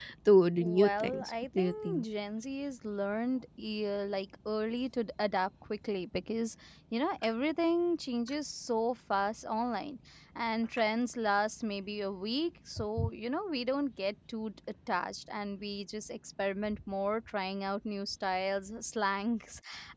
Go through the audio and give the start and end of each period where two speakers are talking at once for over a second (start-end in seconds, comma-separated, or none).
0.6-2.0